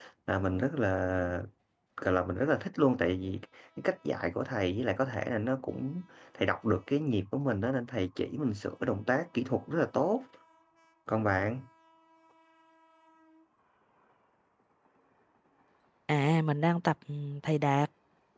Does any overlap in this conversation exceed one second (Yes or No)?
No